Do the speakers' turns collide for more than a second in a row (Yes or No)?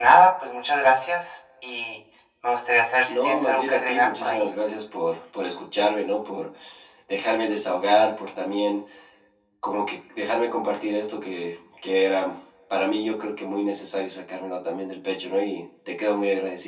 Yes